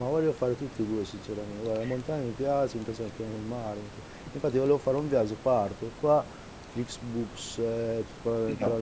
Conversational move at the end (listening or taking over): listening